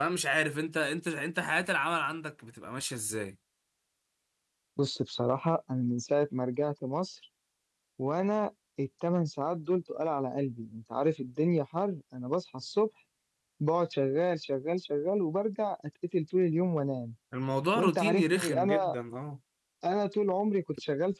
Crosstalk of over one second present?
Yes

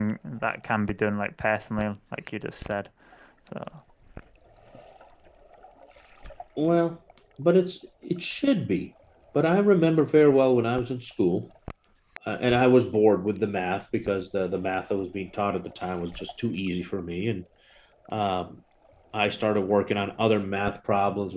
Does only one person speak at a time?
Yes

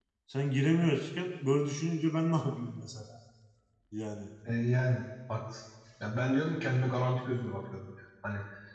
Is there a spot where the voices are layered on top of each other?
No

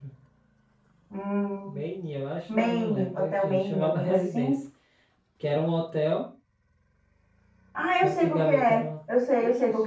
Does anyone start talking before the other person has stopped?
Yes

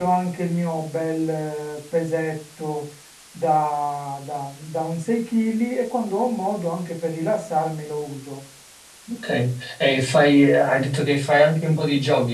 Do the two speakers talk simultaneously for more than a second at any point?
No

